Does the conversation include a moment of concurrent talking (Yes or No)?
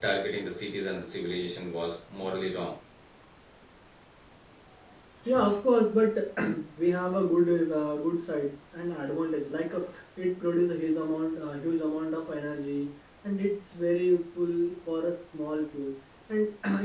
No